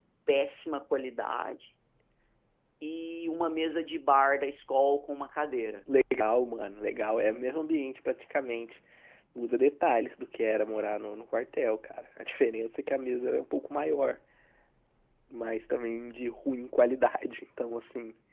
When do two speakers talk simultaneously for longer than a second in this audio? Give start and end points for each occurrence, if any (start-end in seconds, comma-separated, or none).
none